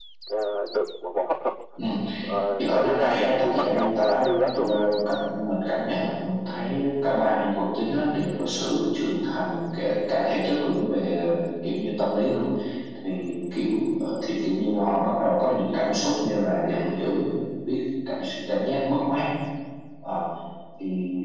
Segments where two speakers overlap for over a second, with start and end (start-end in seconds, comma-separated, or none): 2.6-4.8